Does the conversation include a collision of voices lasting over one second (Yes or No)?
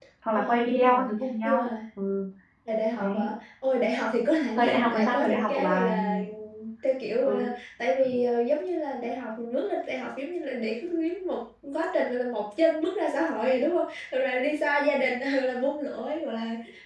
Yes